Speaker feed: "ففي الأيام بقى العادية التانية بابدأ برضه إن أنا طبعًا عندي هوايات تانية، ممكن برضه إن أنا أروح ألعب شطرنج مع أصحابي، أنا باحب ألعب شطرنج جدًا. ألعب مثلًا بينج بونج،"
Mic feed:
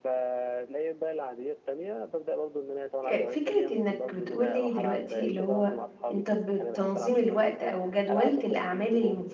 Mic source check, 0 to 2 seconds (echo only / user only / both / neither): echo only